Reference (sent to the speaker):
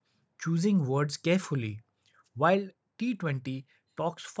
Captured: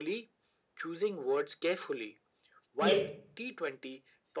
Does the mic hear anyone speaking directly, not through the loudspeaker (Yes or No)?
Yes